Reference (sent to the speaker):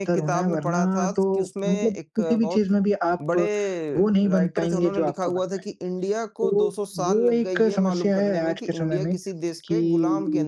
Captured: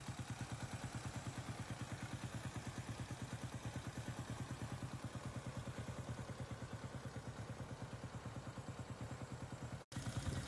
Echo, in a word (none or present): none